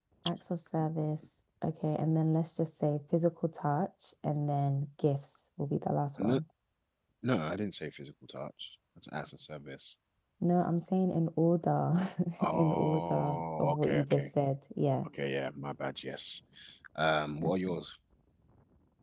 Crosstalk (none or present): present